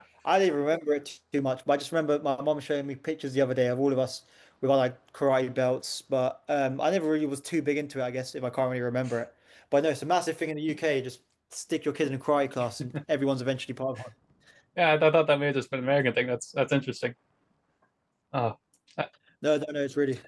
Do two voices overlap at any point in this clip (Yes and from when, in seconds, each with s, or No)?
No